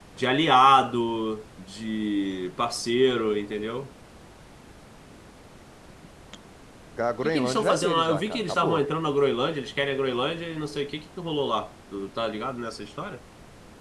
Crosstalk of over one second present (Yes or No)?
Yes